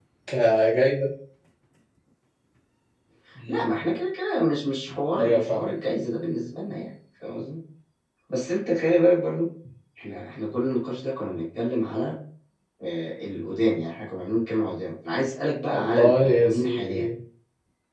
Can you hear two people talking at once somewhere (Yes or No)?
Yes